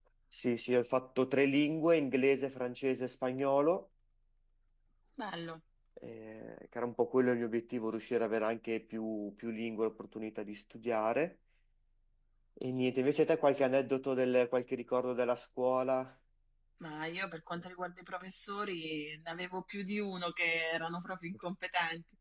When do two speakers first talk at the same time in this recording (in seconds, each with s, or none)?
none